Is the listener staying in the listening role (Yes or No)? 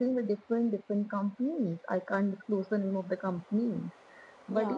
Yes